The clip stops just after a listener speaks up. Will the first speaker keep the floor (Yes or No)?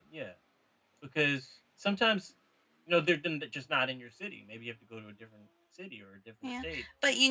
No